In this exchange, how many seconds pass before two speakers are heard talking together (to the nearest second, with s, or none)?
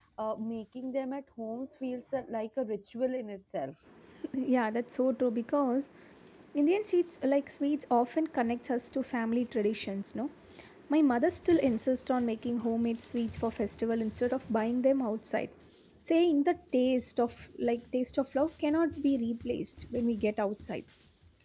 none